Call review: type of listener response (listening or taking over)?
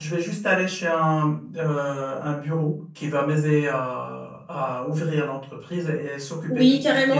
taking over